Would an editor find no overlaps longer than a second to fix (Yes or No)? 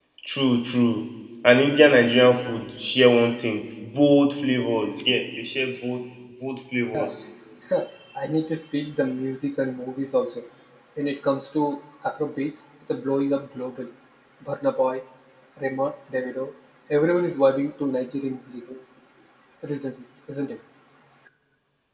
Yes